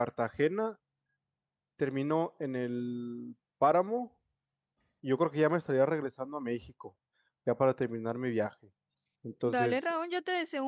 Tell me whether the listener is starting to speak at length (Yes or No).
Yes